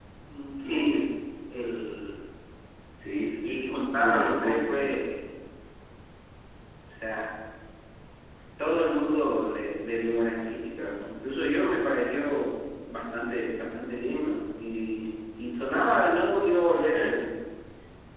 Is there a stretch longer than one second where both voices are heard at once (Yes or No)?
Yes